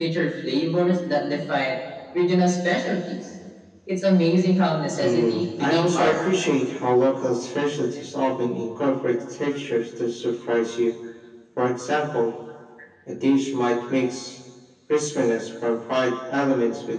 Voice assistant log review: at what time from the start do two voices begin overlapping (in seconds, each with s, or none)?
5.0 s